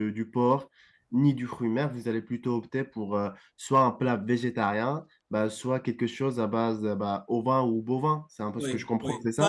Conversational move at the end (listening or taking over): taking over